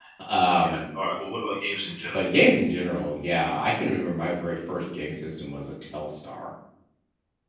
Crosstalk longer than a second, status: none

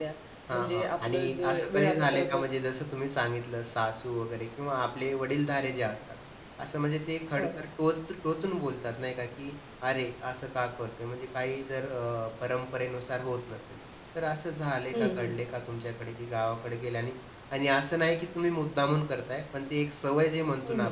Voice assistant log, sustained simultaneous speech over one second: present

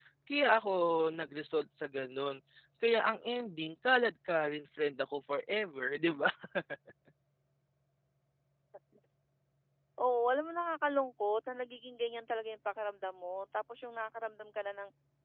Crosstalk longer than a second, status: none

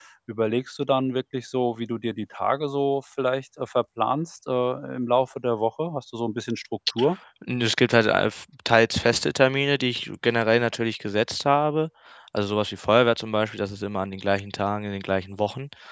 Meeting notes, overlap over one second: none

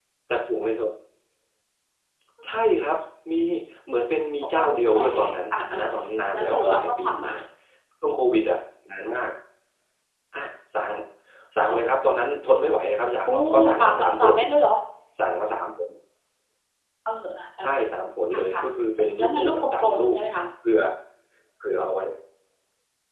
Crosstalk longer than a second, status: present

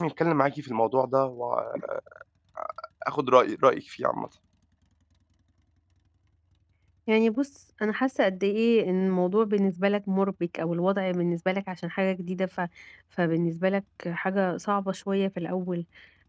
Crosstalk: none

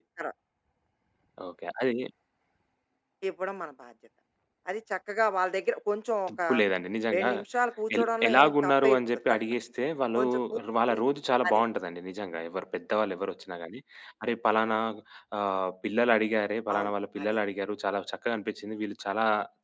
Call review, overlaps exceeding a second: present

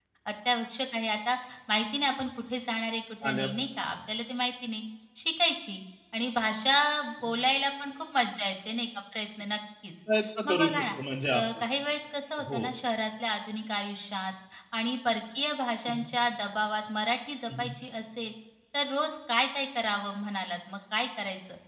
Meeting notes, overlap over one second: none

